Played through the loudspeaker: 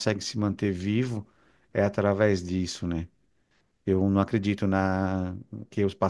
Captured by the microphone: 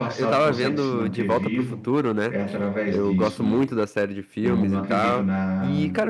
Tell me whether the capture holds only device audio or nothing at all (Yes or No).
No